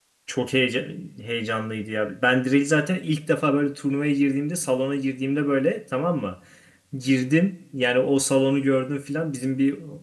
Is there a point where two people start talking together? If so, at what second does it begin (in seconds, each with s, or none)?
none